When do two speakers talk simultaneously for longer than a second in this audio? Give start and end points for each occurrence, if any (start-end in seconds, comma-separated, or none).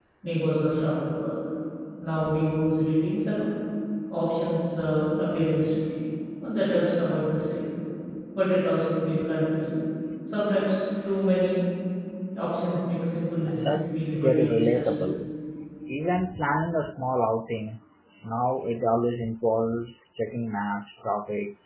13.6-14.9